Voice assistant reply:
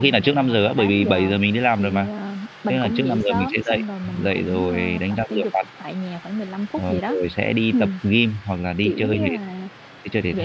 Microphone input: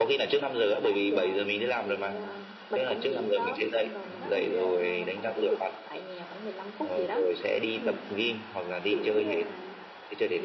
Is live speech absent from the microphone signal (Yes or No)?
No